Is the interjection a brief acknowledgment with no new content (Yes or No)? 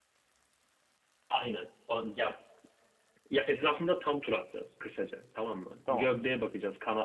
Yes